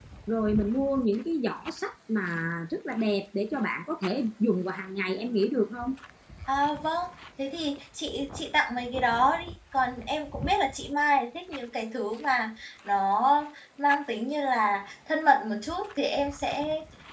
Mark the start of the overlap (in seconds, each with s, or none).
none